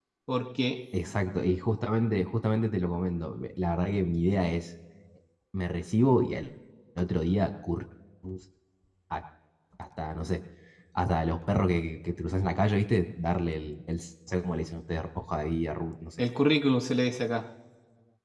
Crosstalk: none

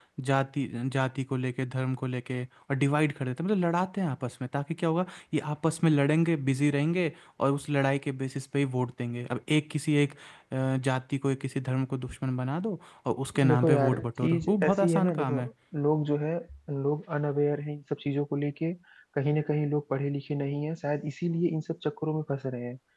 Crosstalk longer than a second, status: present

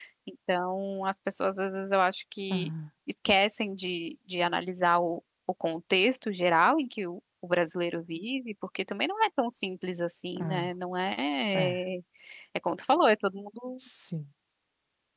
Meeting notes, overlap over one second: none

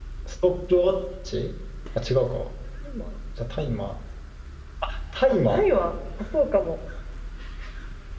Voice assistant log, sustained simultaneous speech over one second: none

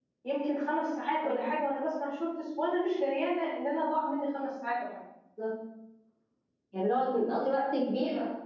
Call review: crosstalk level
none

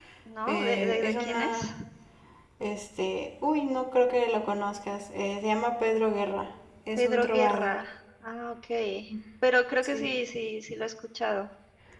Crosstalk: present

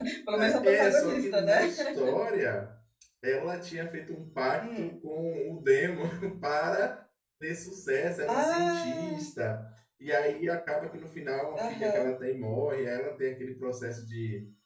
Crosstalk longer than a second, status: present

